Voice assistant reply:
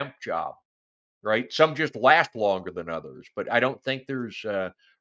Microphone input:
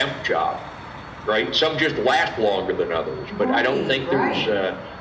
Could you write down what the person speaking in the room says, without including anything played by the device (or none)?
Right, right.